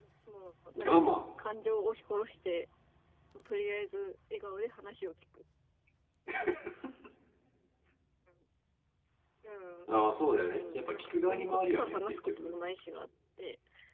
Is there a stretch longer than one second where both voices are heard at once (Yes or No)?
Yes